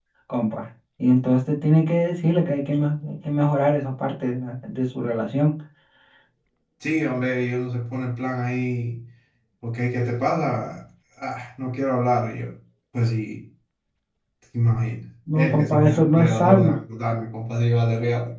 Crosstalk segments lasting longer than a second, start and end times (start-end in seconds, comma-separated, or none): 15.4-16.8